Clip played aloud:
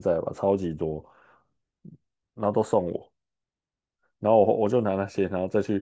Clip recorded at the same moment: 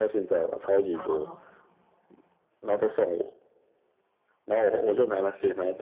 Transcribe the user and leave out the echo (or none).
哦，